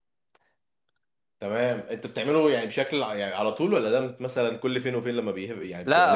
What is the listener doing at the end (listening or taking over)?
taking over